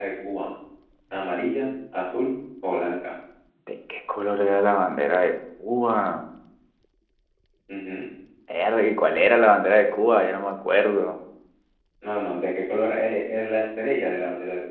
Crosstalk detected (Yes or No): No